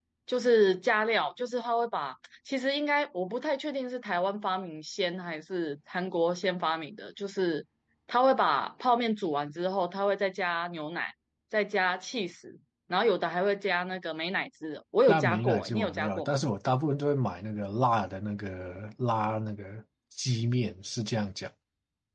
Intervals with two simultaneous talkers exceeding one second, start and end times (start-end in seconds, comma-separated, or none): 15.1-16.4